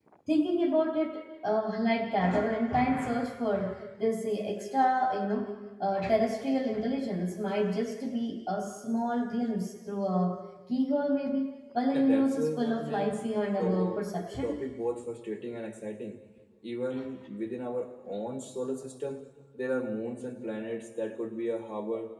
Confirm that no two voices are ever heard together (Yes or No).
No